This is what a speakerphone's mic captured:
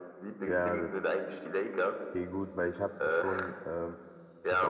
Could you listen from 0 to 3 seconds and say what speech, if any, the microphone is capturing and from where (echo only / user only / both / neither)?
both